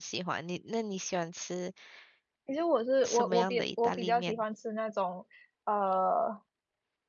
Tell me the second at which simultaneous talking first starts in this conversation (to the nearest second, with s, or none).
3 s